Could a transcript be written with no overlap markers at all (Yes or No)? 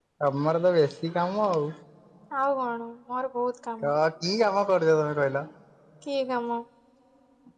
Yes